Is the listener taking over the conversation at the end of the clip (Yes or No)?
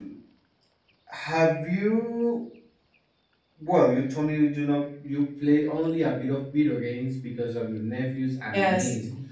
No